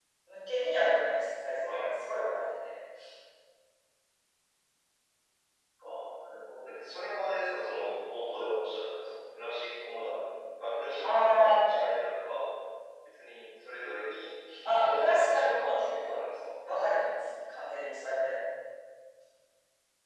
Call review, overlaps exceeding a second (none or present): present